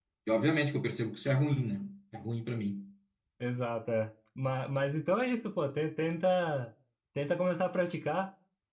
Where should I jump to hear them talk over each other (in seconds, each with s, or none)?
none